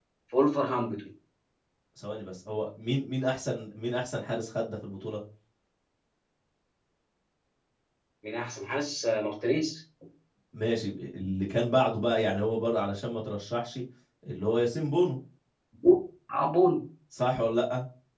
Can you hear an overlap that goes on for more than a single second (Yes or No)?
No